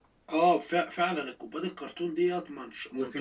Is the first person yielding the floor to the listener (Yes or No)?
Yes